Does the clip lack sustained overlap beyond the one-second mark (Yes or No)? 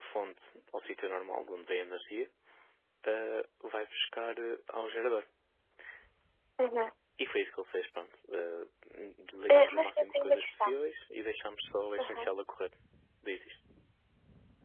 No